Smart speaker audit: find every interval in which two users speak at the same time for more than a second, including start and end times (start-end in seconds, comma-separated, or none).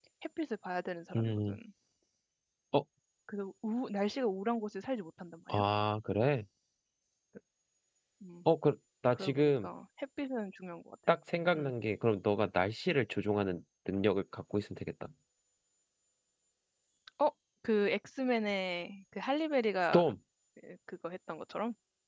none